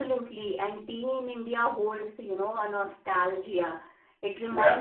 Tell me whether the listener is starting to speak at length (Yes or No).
No